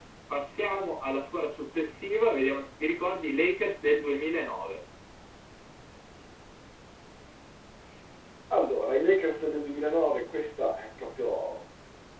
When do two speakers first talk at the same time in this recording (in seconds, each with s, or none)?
none